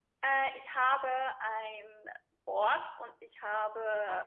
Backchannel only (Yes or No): Yes